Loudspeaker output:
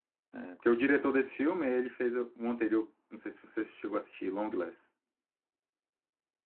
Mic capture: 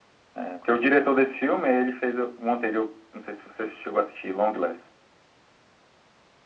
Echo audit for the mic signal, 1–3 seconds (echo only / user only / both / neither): echo only